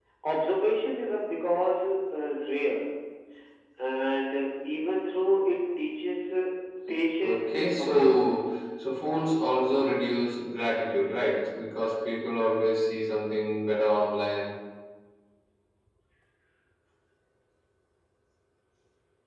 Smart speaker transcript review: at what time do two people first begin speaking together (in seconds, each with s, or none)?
7.2 s